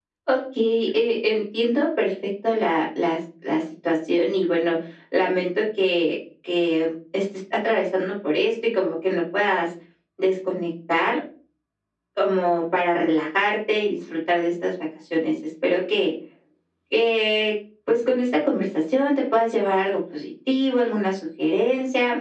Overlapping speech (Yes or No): No